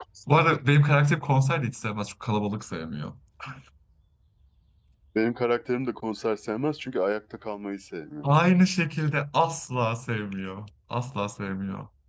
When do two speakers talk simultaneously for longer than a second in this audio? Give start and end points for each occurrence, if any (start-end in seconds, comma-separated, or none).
none